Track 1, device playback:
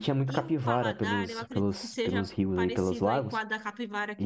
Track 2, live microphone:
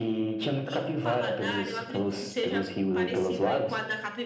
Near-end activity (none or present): none